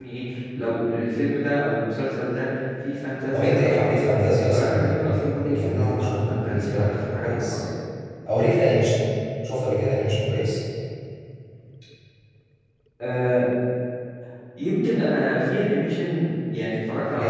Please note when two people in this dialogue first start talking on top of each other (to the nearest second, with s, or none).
3 s